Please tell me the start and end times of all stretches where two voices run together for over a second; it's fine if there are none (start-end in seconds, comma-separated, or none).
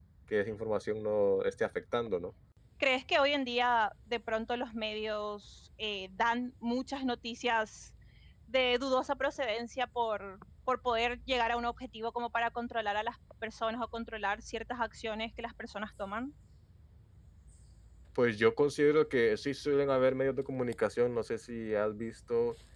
none